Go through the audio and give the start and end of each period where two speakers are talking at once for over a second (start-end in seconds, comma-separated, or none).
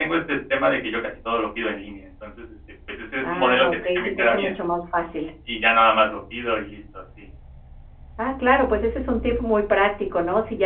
3.2-4.5